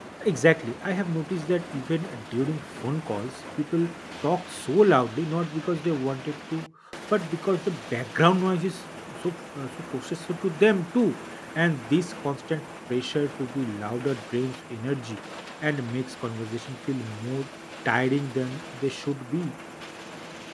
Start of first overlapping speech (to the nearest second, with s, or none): none